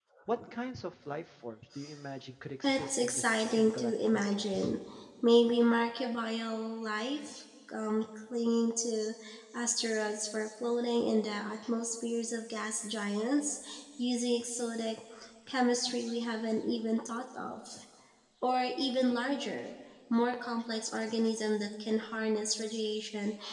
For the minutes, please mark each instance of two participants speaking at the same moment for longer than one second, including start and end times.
2.6-4.7

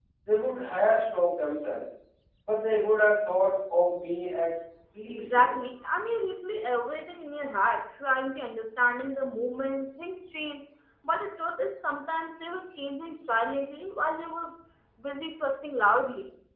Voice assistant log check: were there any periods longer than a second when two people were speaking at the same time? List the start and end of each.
none

